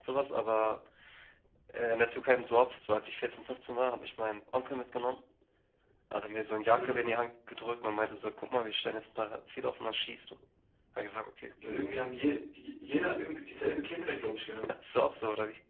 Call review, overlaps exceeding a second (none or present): none